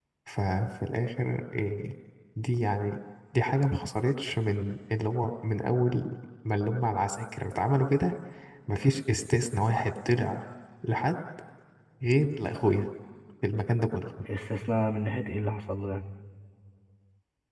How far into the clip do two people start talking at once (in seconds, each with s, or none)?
none